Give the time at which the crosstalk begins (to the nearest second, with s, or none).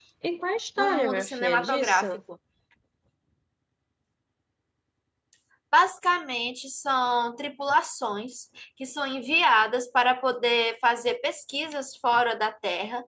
1 s